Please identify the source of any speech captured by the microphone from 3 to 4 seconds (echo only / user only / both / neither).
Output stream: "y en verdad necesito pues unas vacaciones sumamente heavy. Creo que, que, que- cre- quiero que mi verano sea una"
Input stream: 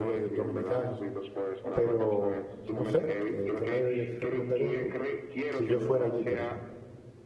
both